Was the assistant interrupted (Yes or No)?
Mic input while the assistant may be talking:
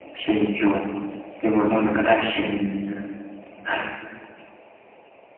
No